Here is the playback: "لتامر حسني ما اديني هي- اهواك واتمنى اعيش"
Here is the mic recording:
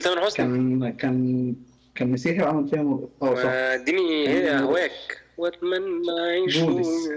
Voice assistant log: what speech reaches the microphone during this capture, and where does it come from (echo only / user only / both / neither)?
both